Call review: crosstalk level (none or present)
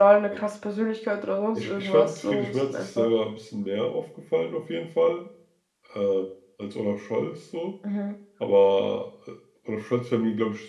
present